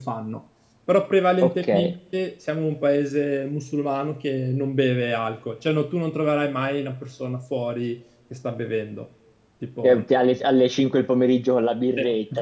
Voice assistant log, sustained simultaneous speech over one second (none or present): none